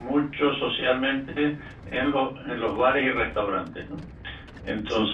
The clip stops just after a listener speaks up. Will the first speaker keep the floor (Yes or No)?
Yes